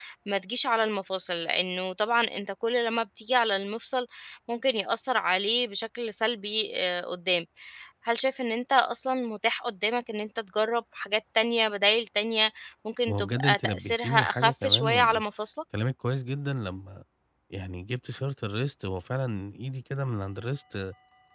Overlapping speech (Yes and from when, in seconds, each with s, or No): Yes, from 13.1 s